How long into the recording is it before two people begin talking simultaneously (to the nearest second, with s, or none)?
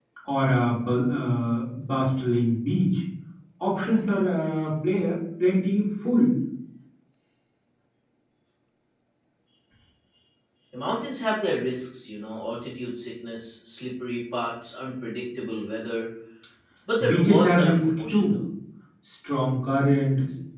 17 s